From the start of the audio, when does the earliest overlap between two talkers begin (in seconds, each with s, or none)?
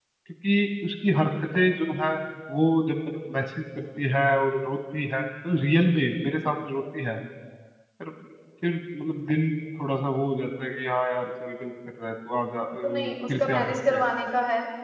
12.8 s